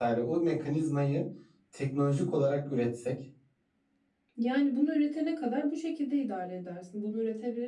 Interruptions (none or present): none